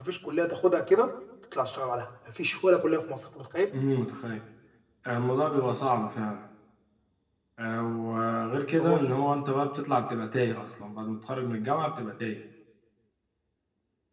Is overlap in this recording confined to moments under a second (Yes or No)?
Yes